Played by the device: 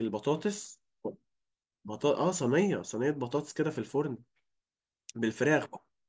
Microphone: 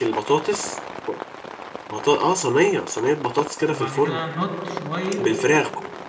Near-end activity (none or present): present